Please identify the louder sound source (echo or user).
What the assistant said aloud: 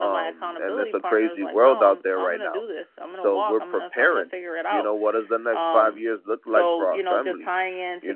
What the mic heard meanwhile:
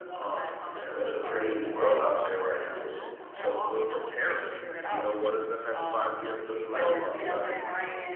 echo